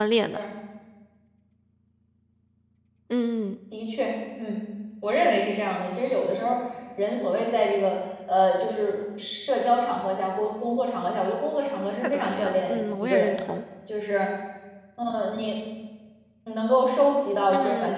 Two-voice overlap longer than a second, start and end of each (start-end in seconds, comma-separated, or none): 12.0-13.4